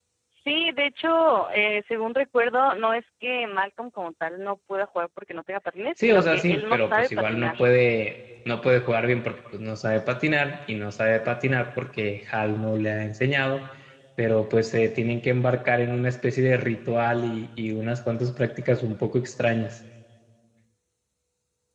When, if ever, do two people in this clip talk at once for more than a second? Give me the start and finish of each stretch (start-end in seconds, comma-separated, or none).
6.0-7.6